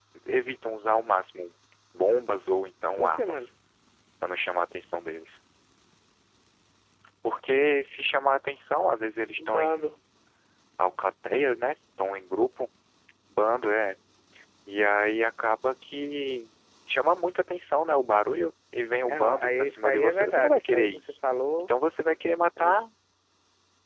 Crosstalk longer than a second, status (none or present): present